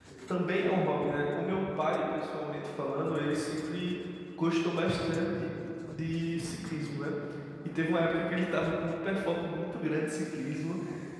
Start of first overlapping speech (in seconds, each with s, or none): none